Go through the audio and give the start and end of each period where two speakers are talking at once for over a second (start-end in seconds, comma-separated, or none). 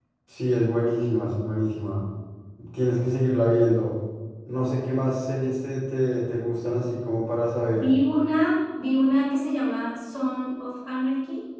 none